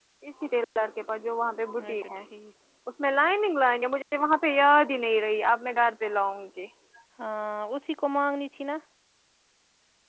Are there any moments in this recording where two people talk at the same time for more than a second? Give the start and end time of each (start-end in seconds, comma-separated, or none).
none